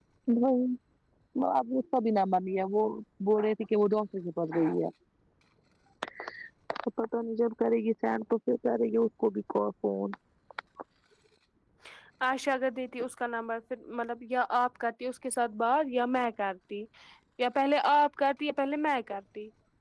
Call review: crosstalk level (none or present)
none